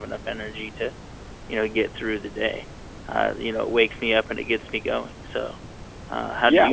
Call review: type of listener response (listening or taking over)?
taking over